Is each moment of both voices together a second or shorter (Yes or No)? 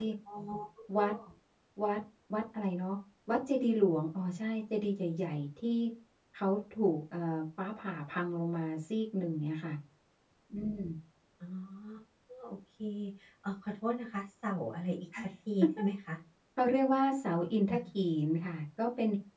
Yes